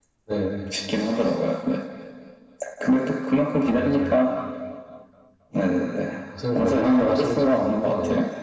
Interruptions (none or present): present